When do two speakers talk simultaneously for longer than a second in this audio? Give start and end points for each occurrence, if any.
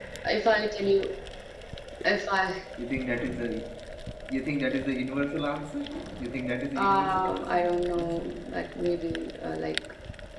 6.8-8.3

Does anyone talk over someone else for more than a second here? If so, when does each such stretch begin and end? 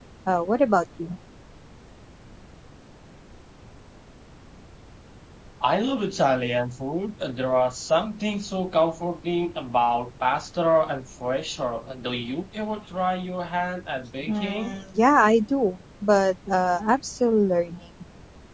none

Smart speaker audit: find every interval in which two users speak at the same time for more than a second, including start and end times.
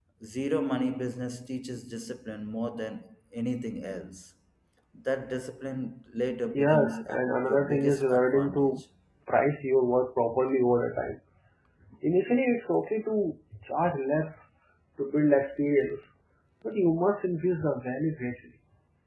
6.6-8.7

